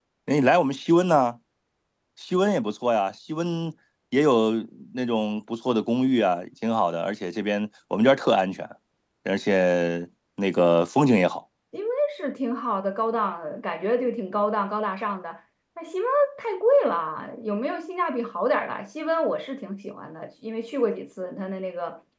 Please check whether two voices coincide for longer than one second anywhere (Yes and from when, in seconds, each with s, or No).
No